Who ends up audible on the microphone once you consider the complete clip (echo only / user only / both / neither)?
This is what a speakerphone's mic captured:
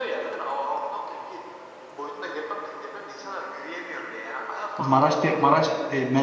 both